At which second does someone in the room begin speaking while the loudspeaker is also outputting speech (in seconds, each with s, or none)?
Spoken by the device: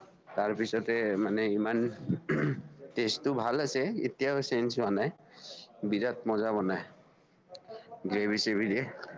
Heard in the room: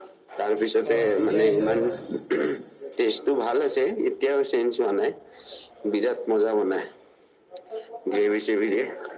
0.9 s